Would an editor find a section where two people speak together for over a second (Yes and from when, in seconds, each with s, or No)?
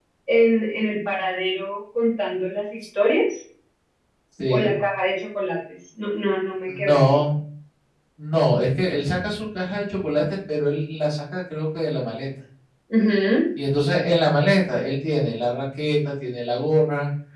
No